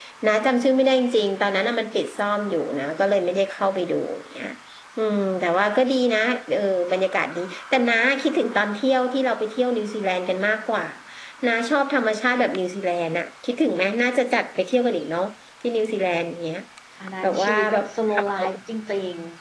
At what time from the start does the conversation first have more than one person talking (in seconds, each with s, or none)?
17.2 s